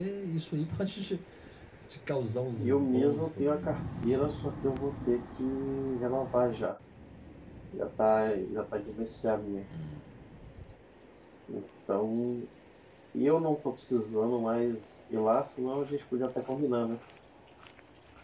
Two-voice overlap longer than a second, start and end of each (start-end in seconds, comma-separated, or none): 2.6-4.1